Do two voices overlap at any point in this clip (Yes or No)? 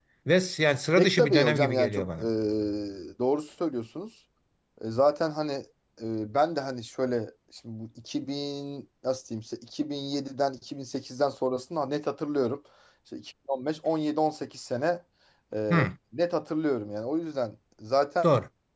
Yes